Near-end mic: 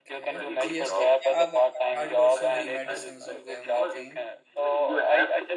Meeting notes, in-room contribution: present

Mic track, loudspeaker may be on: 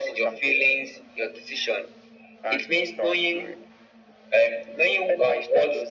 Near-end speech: none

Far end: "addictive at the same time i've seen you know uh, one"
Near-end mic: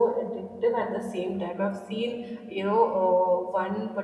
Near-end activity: none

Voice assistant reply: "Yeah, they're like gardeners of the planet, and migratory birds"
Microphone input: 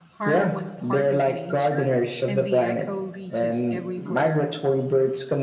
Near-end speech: present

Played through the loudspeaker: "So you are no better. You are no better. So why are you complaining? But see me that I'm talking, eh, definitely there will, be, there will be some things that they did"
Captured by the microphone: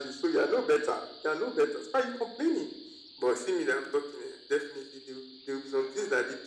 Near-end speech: none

